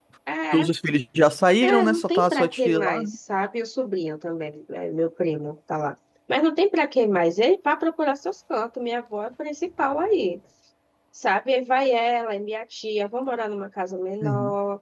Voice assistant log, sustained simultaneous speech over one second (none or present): present